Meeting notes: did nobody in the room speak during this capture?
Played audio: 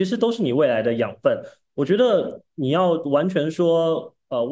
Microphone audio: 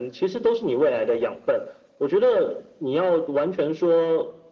Yes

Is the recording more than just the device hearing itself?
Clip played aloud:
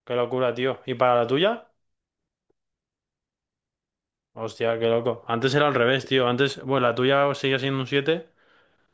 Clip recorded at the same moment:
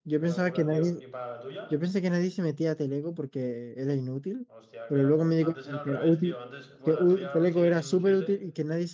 Yes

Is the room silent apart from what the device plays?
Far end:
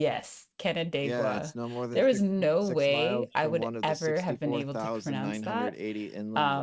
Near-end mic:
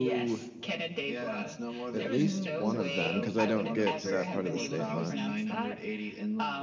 No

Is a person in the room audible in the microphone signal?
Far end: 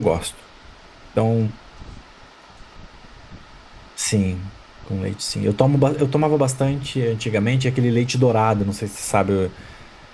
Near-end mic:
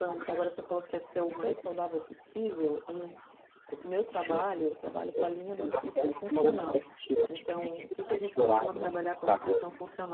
Yes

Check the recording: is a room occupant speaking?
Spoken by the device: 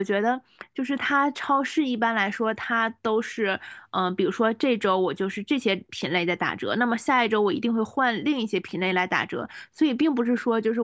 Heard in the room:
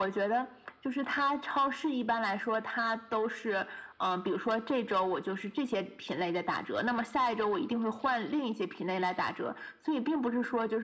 No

